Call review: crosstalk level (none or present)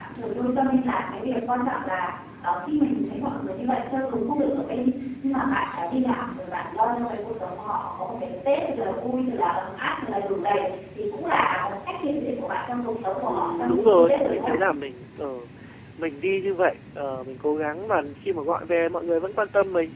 present